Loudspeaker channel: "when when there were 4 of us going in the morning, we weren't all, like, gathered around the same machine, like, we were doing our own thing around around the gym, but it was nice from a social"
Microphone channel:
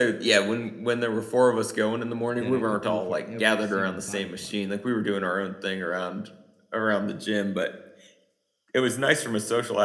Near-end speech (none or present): present